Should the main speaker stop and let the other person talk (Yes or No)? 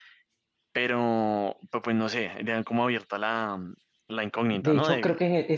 Yes